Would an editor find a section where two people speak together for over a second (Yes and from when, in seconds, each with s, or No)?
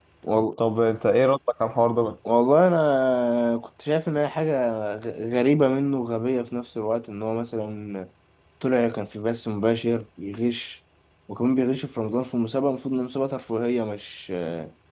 No